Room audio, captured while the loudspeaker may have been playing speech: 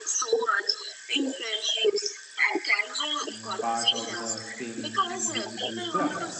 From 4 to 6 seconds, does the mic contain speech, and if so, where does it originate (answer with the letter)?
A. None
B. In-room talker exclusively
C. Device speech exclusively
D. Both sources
D